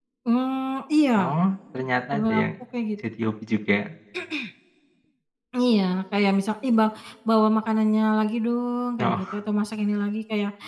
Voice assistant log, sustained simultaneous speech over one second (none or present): none